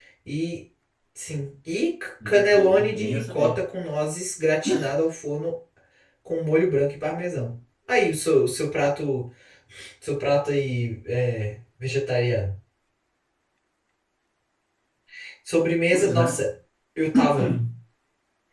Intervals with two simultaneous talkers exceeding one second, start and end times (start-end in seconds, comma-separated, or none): 2.2-3.6